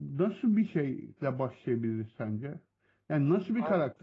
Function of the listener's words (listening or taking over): listening